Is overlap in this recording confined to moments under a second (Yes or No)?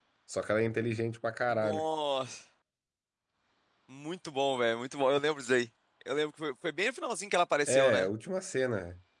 Yes